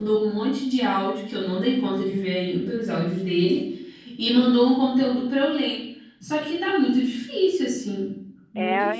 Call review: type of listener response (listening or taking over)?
taking over